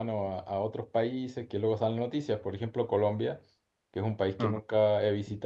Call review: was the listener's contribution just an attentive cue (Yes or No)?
Yes